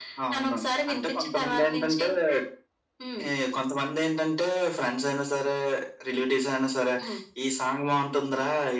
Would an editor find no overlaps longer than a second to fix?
No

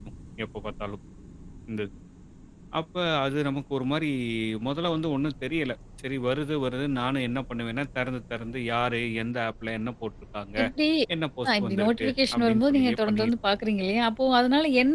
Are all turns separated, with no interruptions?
No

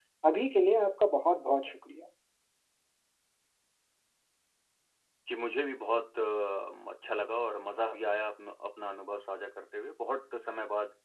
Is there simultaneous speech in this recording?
No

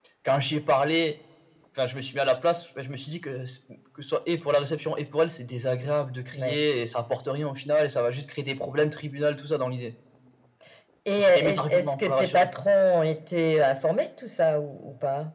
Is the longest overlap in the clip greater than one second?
Yes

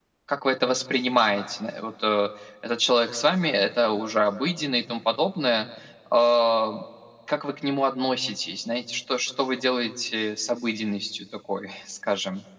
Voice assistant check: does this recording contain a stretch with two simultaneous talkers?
No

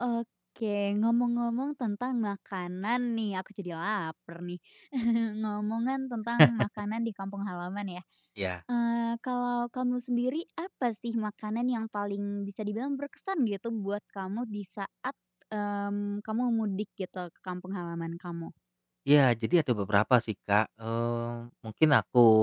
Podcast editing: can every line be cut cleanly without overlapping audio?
Yes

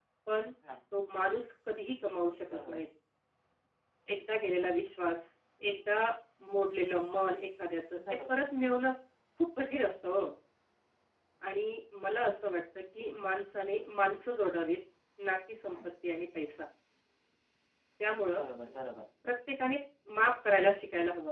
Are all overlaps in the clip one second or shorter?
Yes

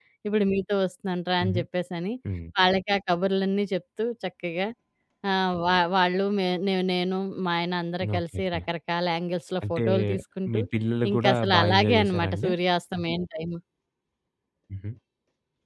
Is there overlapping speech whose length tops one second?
Yes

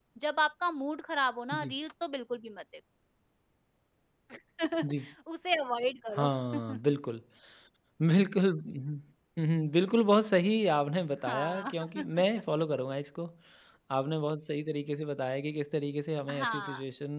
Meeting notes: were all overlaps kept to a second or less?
Yes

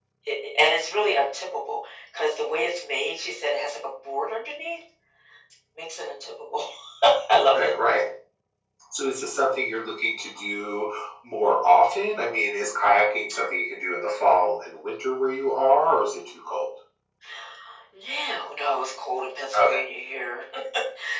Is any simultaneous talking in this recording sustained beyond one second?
No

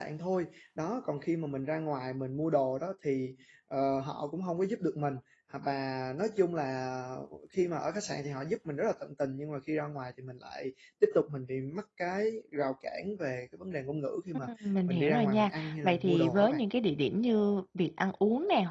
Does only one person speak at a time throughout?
No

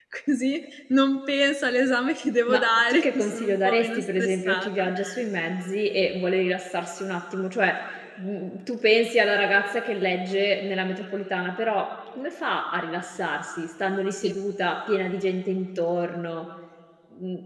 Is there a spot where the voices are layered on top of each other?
Yes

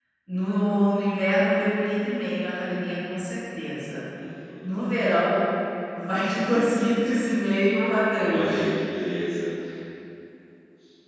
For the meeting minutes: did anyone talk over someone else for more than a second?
No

